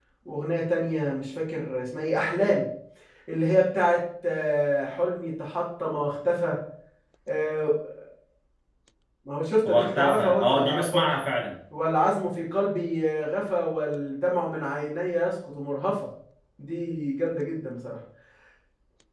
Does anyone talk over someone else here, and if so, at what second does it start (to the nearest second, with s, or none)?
10 s